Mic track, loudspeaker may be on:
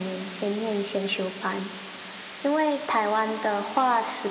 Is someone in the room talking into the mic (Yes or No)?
No